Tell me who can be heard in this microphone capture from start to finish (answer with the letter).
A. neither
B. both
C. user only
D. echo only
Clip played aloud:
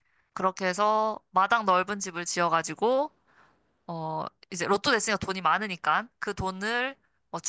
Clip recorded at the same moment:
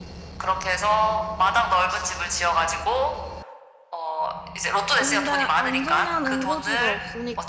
B